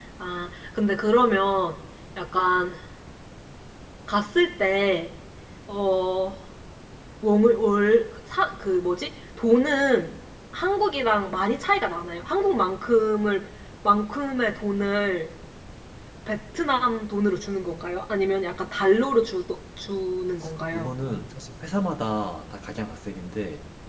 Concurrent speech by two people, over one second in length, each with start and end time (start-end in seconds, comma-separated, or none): none